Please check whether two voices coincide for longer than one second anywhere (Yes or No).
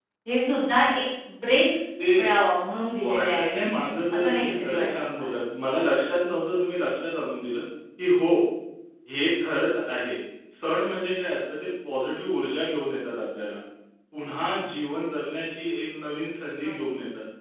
Yes